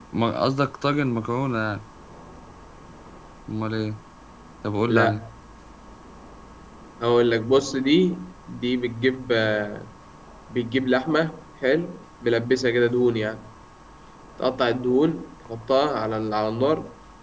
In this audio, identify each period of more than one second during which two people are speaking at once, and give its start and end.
none

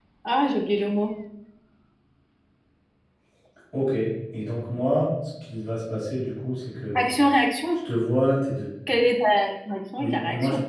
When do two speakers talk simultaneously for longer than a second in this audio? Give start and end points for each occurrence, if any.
none

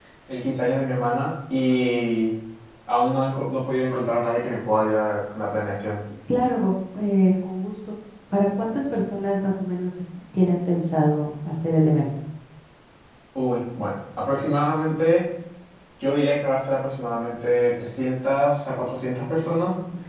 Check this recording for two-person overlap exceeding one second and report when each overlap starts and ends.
none

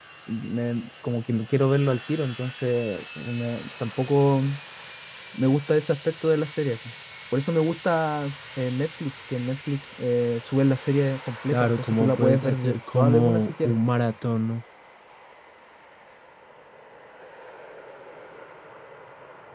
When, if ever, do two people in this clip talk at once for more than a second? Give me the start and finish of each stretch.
11.4-13.8

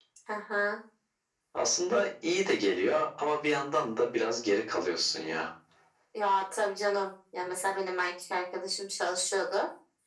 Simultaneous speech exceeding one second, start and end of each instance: none

